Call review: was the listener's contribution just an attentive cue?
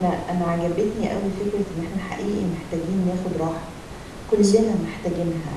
Yes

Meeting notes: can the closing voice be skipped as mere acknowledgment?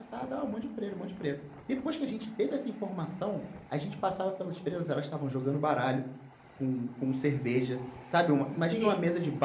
Yes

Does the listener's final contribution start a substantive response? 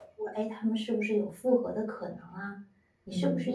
No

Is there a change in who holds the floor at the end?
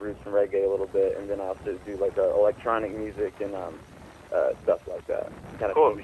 Yes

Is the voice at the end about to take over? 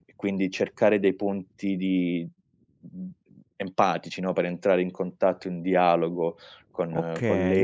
Yes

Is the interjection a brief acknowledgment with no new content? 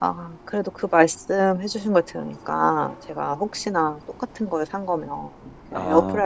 Yes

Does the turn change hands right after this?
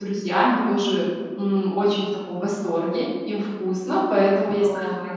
No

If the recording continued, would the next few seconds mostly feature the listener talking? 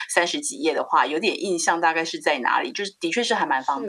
Yes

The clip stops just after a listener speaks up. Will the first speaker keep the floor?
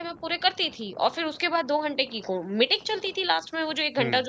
Yes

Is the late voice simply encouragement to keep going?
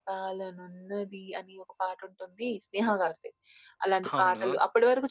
Yes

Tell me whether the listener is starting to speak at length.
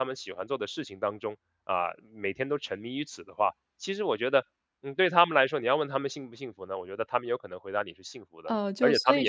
Yes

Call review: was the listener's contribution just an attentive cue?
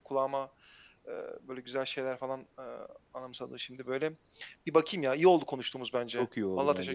No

